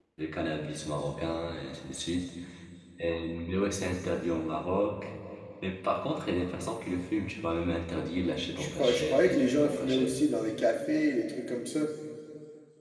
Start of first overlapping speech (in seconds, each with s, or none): 8.6 s